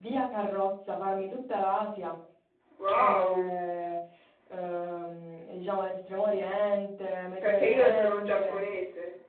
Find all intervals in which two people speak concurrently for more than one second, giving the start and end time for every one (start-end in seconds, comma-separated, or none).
7.4-8.6